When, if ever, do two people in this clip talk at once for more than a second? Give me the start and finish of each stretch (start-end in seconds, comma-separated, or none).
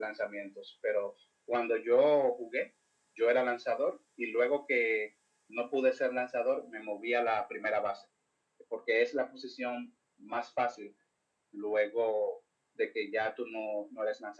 none